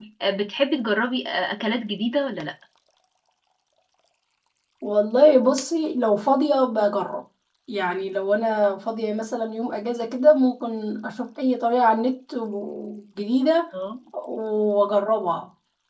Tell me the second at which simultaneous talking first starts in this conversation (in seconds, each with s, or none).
none